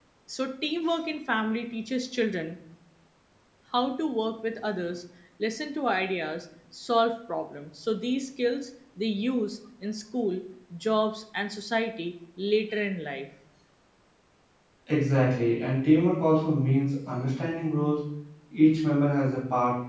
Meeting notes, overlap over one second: none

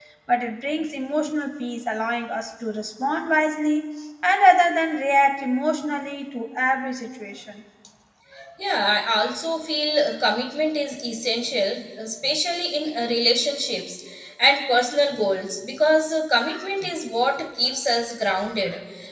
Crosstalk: none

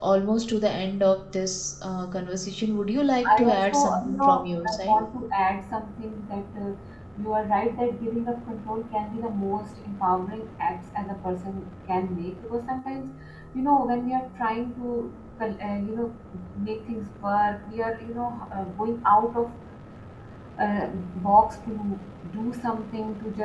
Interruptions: present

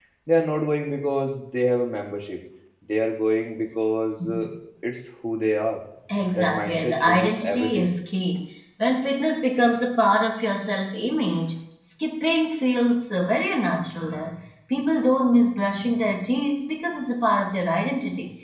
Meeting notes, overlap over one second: present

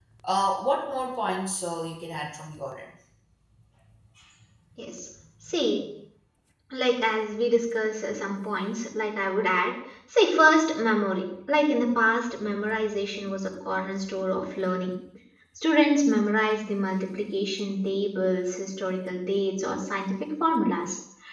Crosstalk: none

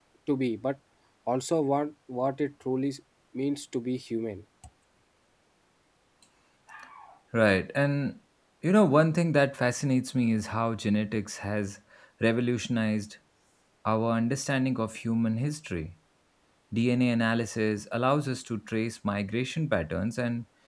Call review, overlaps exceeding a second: none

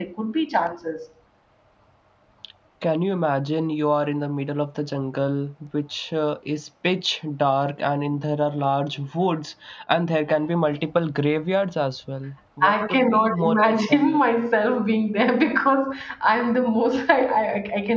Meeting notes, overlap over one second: present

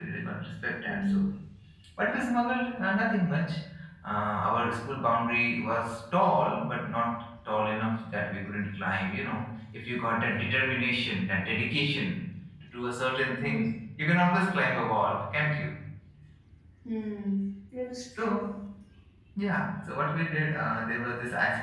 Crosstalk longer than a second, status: none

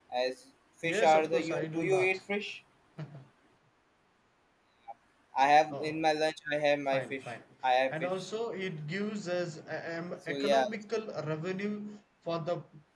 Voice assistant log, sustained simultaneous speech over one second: present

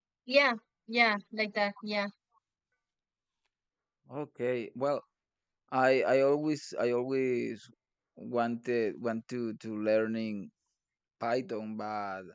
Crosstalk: none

